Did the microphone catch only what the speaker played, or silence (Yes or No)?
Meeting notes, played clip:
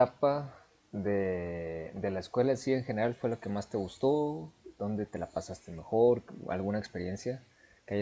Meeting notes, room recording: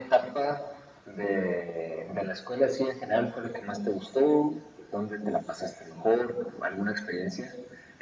Yes